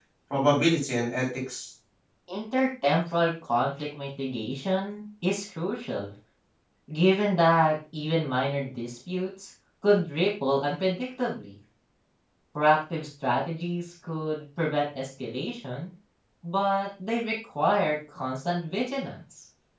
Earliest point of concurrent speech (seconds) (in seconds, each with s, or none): none